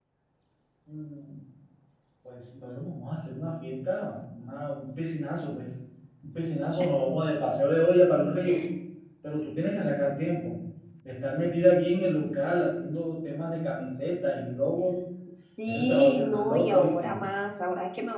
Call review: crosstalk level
present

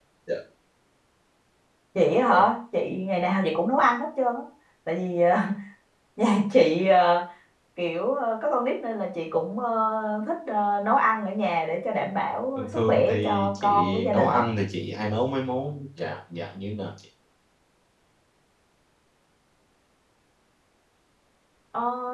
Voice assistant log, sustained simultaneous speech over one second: present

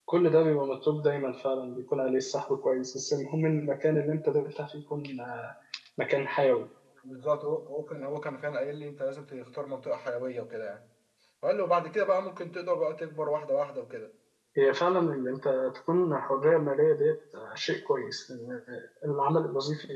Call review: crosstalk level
none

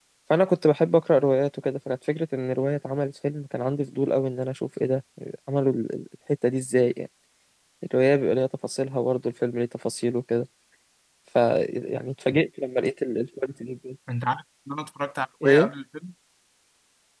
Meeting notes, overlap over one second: none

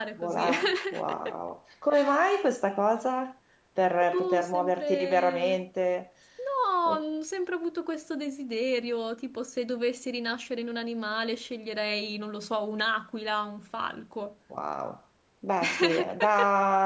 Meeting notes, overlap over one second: present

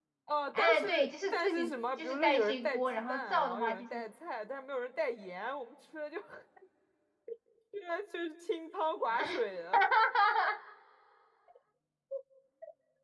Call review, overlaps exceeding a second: present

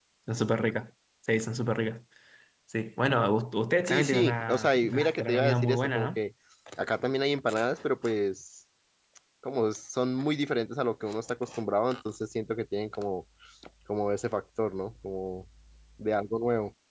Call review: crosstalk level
present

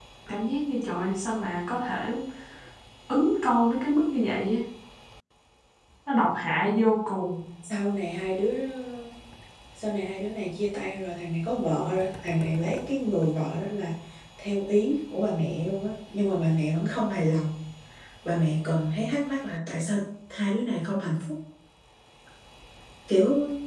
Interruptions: none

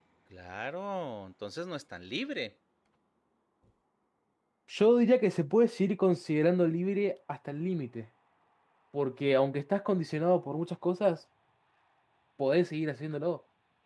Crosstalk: none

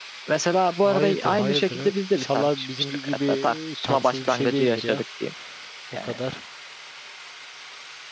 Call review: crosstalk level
present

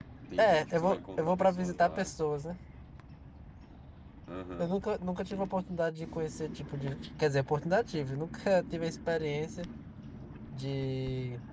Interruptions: present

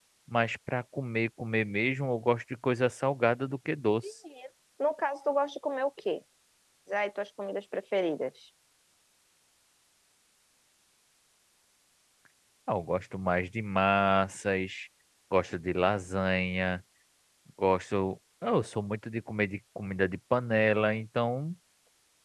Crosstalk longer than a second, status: none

